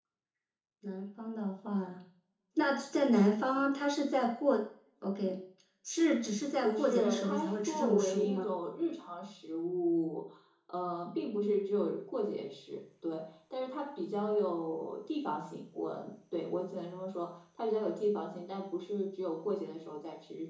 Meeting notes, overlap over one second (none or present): present